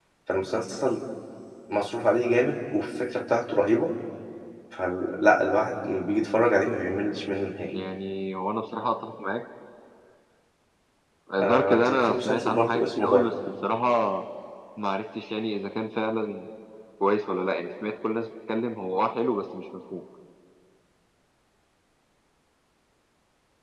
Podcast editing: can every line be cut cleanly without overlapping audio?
No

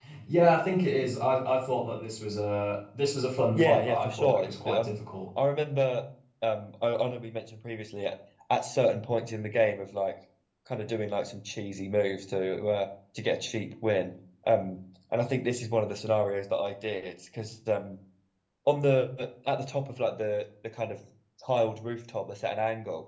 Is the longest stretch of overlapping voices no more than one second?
No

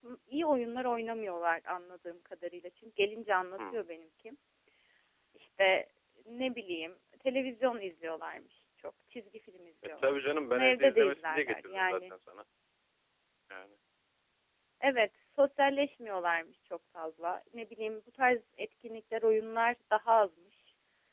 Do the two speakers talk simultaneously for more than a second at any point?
Yes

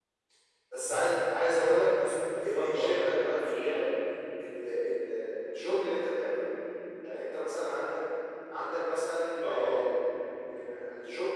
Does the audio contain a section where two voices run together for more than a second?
Yes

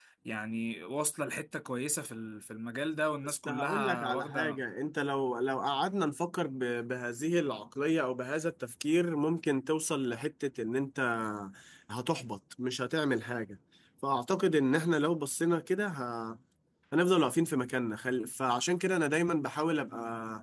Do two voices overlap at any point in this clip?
Yes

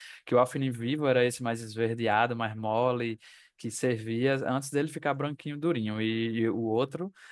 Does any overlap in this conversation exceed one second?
No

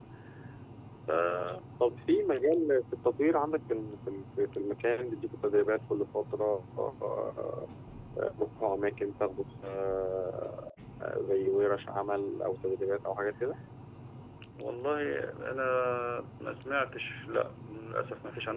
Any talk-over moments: No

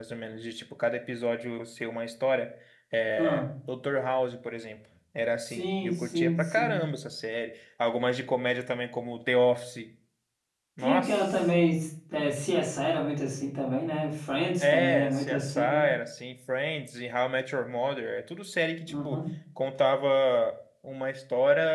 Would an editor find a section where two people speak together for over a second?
Yes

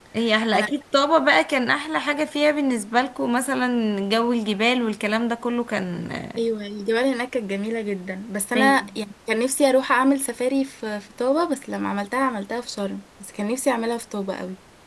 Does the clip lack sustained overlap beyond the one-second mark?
Yes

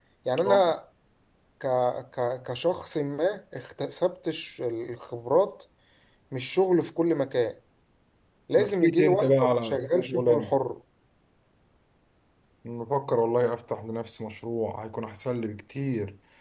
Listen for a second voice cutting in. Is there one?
Yes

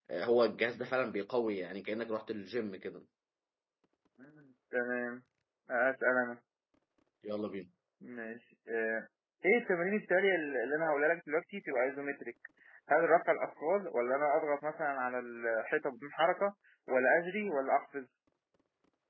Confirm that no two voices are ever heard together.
Yes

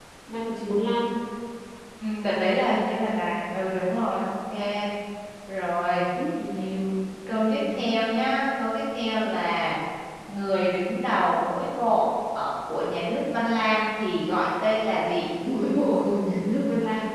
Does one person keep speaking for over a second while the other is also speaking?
No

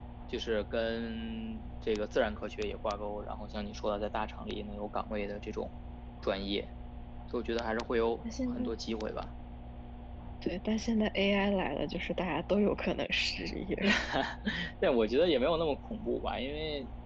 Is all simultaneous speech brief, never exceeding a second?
Yes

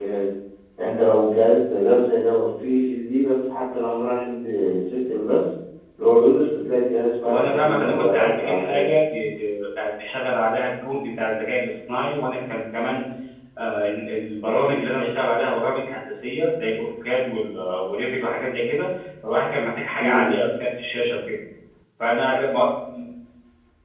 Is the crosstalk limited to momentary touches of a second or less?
No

